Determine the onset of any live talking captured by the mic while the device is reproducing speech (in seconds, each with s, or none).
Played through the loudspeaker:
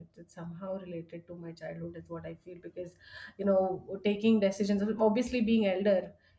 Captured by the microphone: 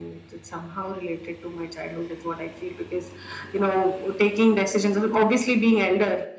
none